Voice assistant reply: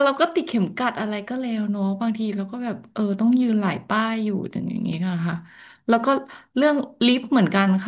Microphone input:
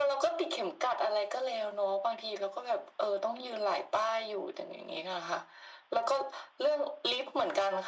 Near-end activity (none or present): none